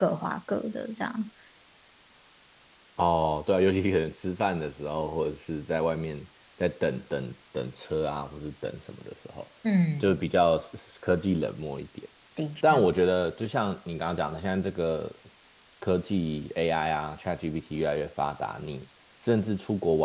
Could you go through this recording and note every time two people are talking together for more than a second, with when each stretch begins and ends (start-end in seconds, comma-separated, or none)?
none